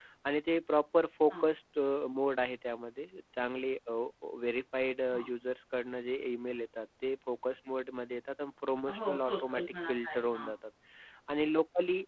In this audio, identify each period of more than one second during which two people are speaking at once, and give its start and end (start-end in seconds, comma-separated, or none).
9.0-10.5